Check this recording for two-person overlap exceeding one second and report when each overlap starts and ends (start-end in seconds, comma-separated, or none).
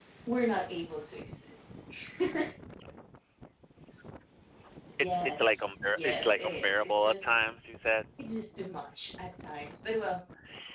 5.0-7.3